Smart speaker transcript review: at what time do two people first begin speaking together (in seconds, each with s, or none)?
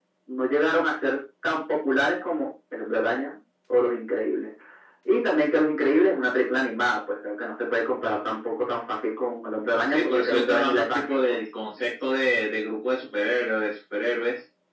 9.9 s